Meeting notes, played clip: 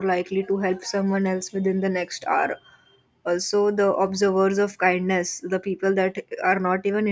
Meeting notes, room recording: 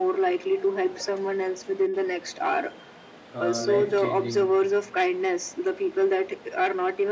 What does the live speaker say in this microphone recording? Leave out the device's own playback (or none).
uh, life changing